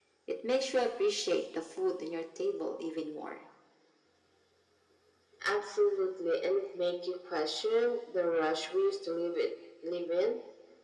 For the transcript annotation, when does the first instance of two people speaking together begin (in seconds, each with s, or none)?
none